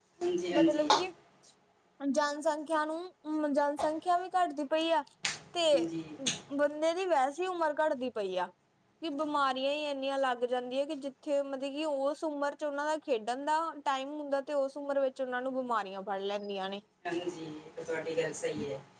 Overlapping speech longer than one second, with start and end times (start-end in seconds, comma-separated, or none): none